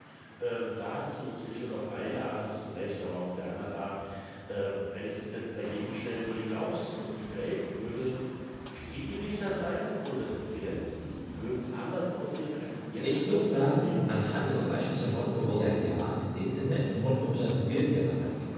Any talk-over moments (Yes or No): Yes